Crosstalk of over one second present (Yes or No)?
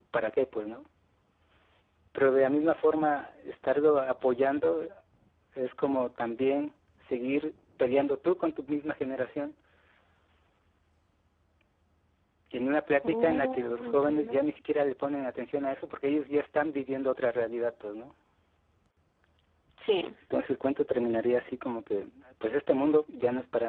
Yes